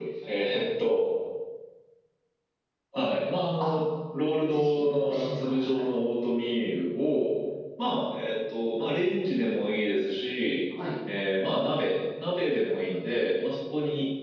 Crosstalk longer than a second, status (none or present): present